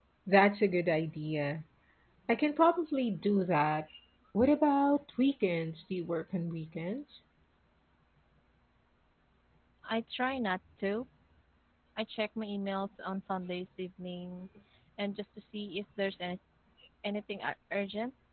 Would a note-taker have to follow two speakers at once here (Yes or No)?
No